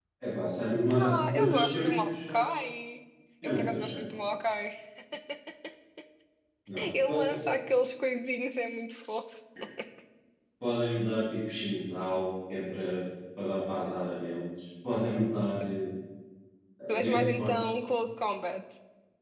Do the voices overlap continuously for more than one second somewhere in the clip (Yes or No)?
Yes